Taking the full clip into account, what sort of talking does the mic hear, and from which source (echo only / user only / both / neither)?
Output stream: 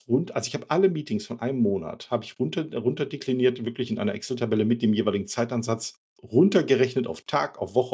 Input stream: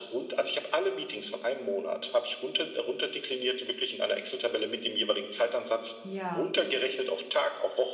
both